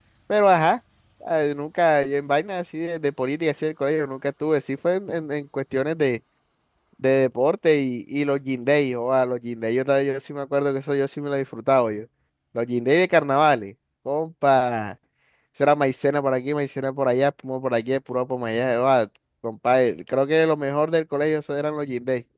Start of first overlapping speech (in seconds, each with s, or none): none